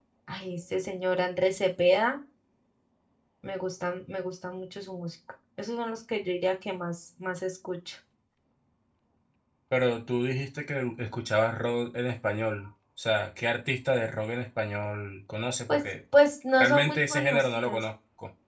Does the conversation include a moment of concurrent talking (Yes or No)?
Yes